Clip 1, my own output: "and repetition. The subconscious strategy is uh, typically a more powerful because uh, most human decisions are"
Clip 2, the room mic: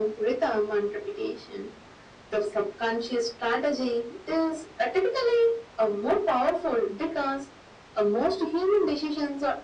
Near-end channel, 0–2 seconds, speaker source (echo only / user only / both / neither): echo only